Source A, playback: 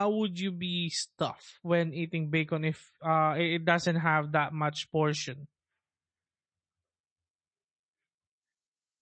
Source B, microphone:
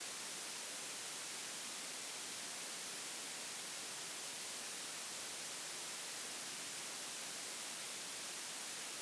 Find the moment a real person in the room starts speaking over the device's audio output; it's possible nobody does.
none

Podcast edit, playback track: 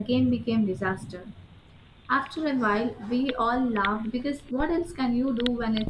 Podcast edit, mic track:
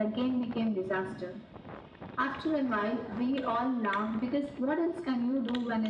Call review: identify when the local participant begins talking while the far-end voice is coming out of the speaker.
none

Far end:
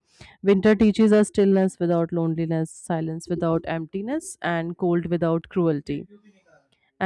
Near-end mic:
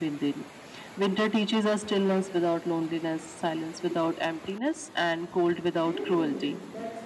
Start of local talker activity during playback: 5.8 s

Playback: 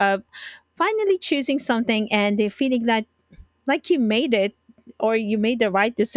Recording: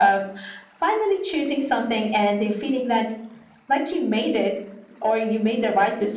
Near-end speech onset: none

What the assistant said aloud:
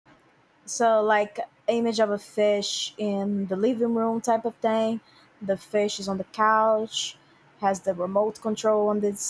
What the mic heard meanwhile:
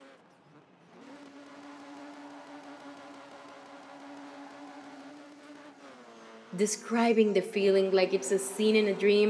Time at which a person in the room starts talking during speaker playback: 6.5 s

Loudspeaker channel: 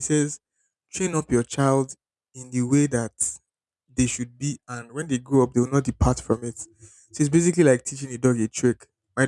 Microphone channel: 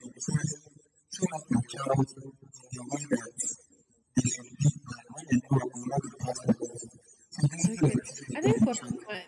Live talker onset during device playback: 7.6 s

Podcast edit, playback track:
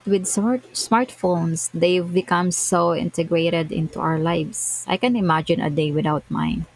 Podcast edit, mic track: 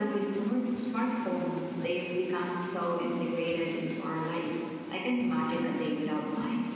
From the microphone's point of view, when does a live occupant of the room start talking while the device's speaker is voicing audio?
none

